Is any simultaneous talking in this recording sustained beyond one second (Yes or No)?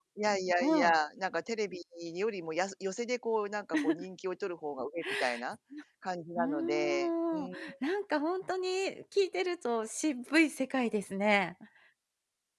Yes